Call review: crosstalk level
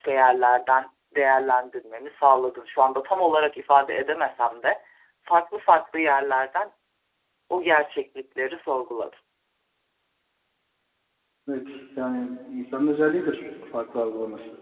none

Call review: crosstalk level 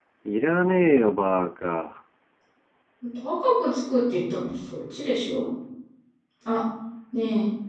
none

